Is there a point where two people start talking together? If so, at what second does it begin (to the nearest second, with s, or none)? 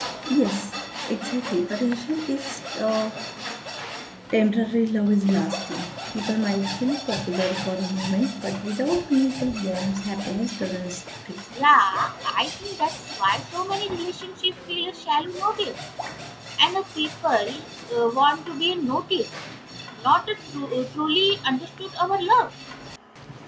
none